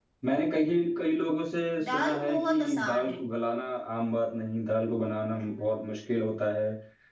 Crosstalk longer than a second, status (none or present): present